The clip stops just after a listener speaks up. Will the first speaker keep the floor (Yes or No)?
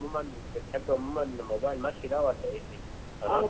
Yes